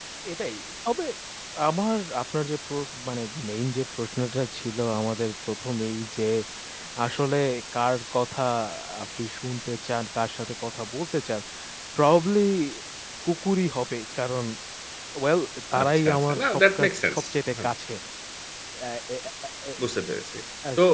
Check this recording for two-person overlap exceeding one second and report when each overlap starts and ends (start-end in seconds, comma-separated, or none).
15.8-17.7